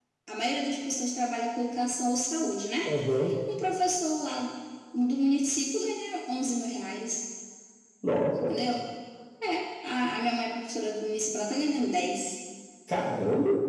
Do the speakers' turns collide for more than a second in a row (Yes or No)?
No